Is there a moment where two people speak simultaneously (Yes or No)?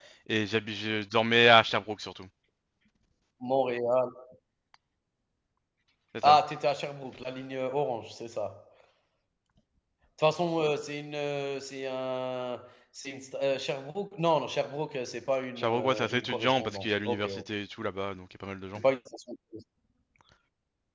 Yes